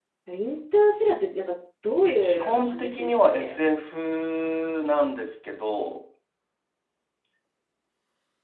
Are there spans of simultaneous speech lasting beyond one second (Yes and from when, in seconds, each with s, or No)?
Yes, from 2.2 s